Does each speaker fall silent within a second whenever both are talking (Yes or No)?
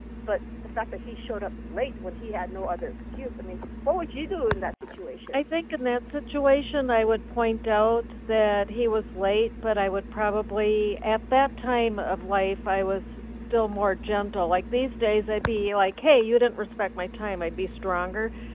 Yes